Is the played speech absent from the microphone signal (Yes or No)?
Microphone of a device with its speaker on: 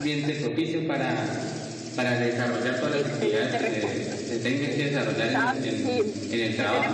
No